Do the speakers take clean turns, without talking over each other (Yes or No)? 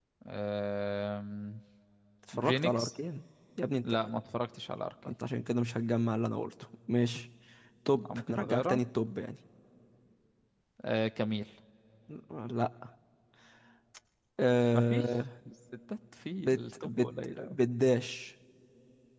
No